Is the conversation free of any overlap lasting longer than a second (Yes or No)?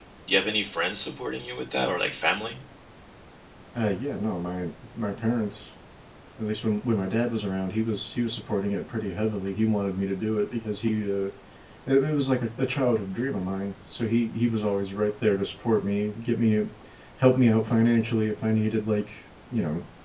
Yes